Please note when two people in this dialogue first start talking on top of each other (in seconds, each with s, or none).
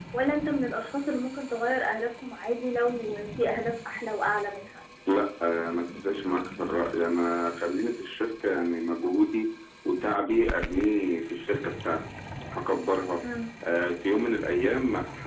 none